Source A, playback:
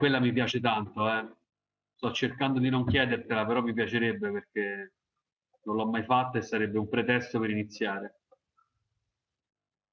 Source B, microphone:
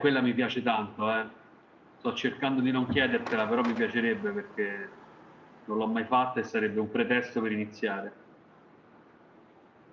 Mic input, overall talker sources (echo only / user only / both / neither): echo only